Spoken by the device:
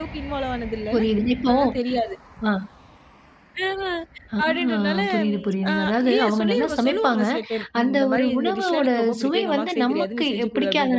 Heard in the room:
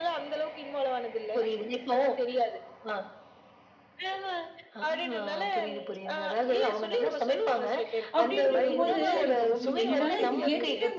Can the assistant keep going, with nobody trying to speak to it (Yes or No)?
No